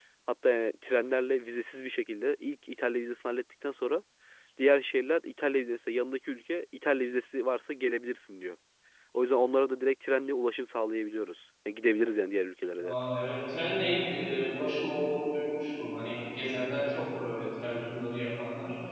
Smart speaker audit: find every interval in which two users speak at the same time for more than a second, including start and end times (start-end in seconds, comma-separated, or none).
none